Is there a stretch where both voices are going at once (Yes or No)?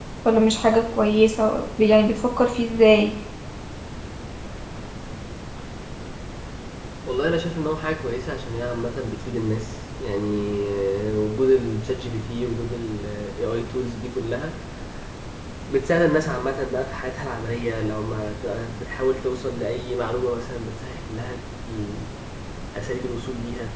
No